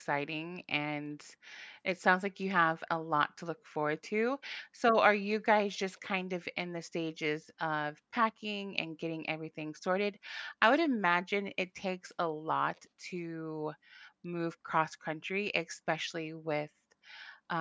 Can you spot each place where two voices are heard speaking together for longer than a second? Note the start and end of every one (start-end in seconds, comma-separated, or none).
none